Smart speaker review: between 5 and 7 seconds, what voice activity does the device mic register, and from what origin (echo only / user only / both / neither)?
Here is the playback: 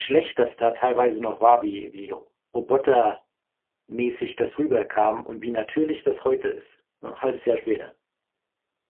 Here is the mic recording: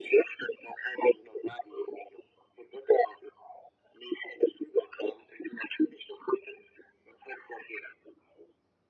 echo only